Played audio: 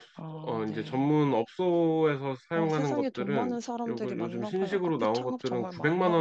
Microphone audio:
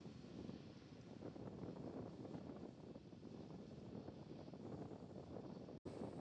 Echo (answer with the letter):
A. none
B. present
A